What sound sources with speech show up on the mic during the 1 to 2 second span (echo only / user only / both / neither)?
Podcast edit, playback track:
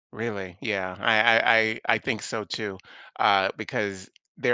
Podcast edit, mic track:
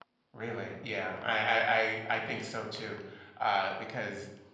echo only